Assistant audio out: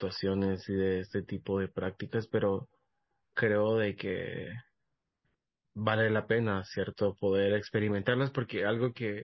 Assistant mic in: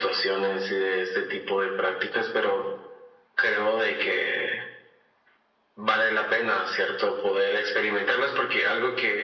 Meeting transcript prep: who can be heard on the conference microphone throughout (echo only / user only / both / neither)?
echo only